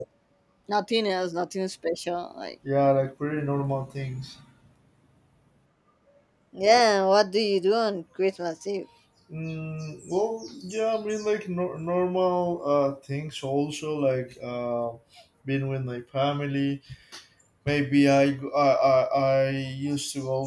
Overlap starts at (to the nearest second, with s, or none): none